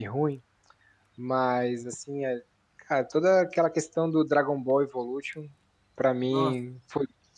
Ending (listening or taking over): listening